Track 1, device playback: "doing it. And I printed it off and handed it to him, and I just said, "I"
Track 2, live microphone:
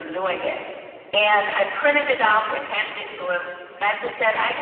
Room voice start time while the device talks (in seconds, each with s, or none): none